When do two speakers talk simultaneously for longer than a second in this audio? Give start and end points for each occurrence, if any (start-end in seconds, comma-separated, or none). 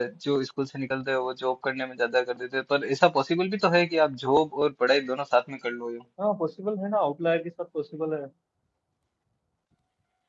none